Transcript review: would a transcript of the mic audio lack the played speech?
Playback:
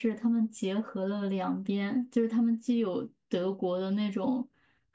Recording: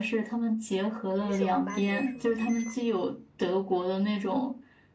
No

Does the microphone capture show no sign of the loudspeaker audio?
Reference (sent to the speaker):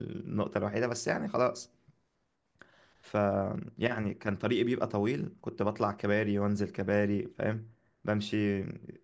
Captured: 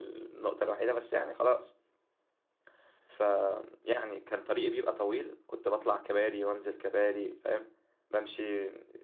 No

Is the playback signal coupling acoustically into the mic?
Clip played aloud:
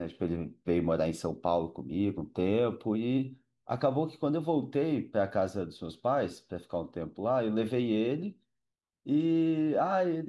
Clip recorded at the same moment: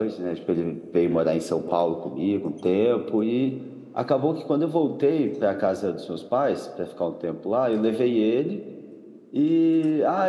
Yes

